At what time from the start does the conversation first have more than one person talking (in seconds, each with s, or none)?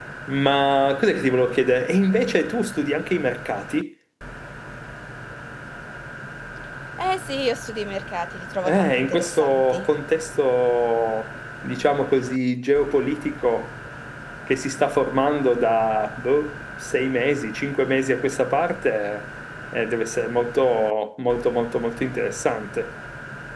8.6 s